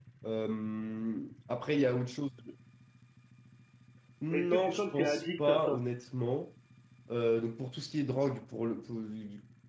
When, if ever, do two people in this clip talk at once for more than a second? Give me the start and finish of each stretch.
4.3-5.8

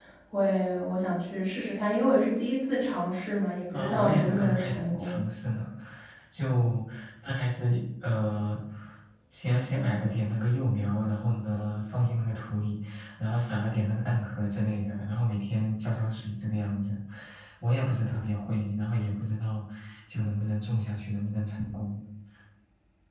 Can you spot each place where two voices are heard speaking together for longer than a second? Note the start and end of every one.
3.7-5.2

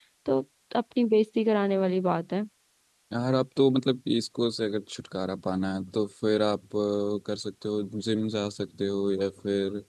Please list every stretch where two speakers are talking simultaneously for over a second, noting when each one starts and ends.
none

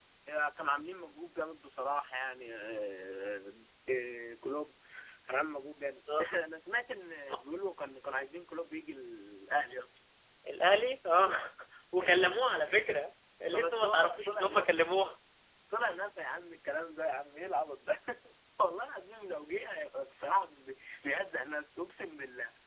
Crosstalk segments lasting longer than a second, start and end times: 13.5-14.8

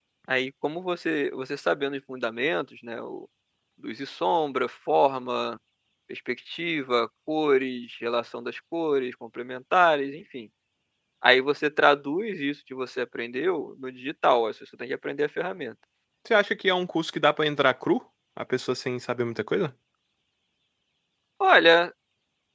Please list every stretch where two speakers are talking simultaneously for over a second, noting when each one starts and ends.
none

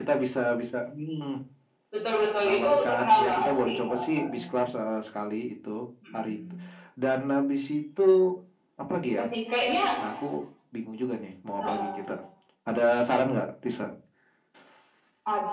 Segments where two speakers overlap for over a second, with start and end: 2.4-4.4

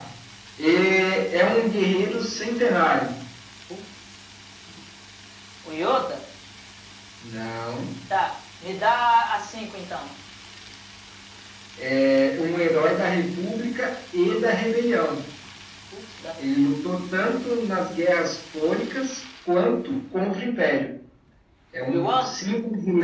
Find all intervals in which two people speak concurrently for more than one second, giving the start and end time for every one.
none

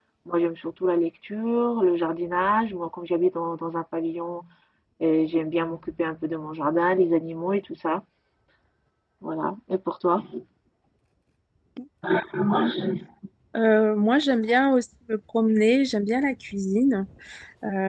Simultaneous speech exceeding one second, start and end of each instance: none

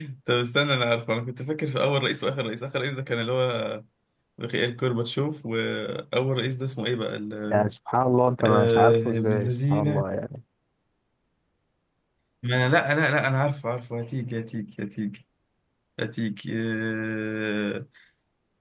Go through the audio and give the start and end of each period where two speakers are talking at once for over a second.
8.4-10.0

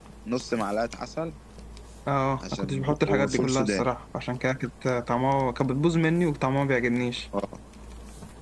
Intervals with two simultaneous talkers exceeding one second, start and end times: 2.5-3.8

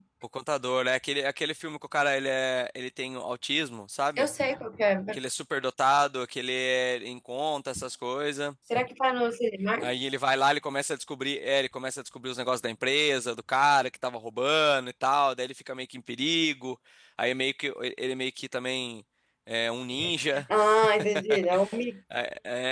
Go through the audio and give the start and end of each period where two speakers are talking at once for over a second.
none

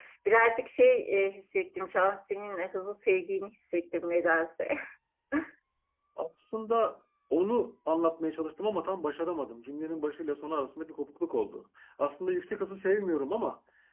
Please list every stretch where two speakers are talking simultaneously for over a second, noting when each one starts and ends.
none

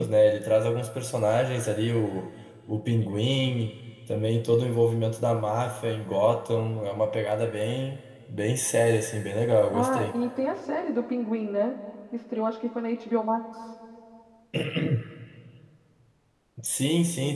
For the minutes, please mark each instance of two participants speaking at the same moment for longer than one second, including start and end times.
none

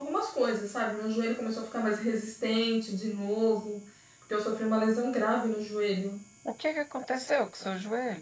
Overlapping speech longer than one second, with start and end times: none

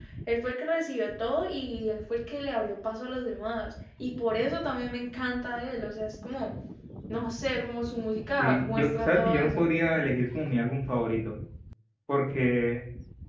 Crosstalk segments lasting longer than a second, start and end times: 8.4-9.7

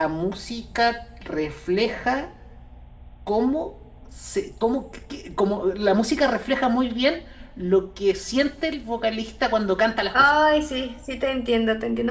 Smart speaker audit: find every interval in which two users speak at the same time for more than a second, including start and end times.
none

